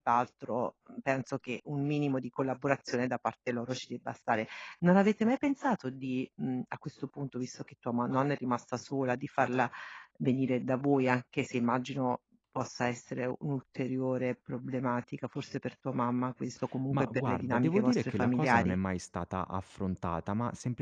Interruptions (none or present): present